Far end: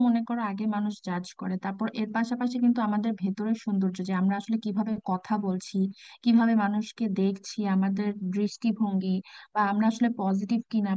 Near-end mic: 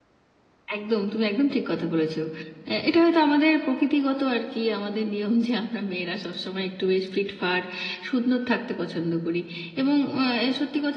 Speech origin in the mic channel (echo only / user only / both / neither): user only